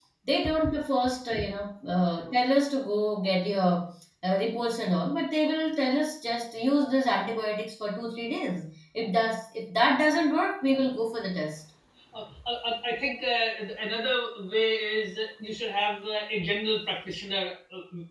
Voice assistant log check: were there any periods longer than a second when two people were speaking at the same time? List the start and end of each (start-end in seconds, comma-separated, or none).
none